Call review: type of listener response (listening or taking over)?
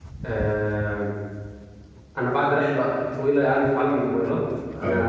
listening